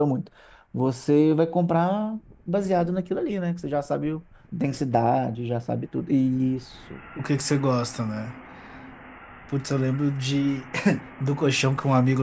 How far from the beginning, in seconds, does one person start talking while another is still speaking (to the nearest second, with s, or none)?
none